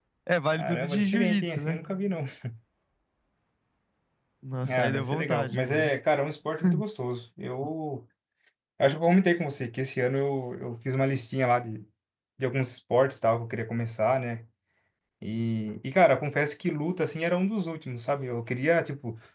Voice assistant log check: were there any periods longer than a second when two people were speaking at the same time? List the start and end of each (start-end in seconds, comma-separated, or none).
0.6-1.8, 4.6-5.9